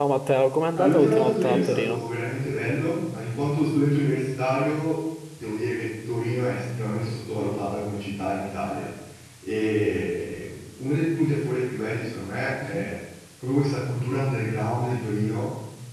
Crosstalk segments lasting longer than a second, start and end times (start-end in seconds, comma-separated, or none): 0.7-2.0